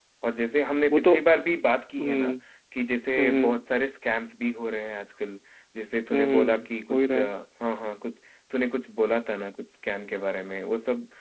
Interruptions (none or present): present